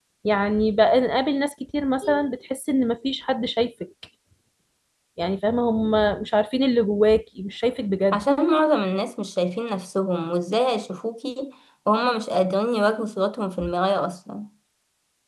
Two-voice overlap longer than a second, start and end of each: none

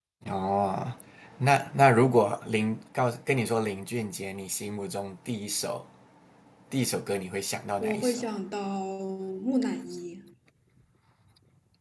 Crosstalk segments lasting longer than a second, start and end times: none

